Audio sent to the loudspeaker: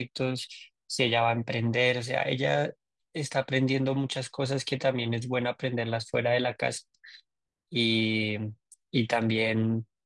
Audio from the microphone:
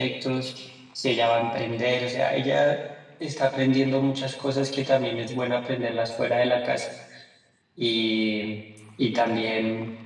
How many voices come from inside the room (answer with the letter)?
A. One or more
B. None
B